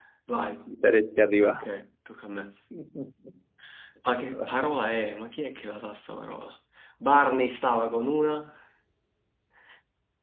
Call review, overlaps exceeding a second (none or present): none